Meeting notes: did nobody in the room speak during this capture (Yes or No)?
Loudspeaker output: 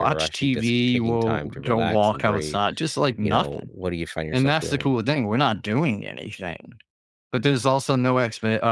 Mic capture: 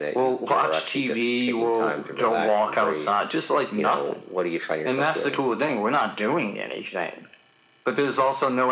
Yes